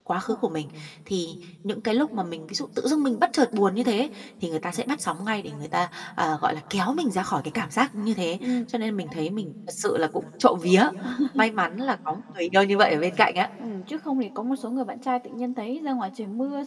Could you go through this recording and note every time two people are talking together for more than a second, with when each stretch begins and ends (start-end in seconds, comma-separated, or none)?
none